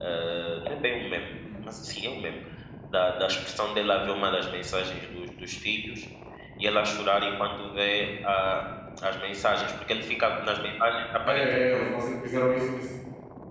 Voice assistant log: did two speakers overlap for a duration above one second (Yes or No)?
No